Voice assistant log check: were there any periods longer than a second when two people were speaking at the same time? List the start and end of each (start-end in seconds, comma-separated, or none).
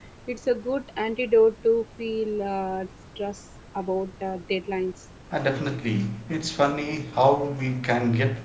none